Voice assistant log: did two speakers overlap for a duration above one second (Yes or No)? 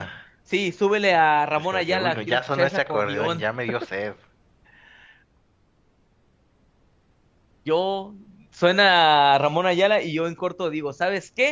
Yes